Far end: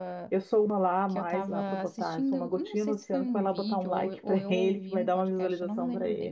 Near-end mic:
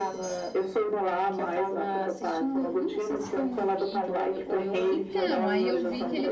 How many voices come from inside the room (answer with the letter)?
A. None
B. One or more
B